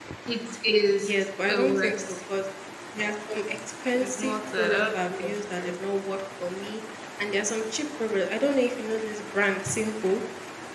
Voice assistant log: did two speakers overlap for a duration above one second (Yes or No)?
Yes